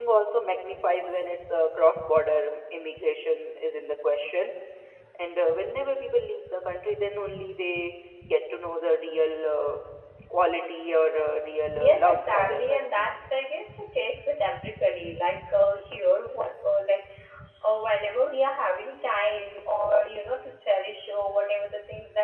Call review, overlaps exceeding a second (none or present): present